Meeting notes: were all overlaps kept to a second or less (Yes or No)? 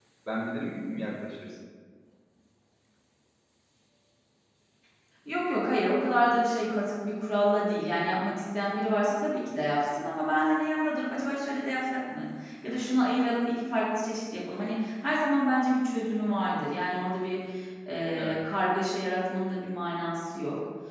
Yes